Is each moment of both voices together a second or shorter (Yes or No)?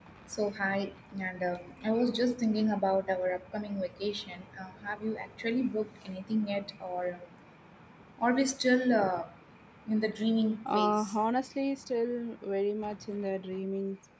Yes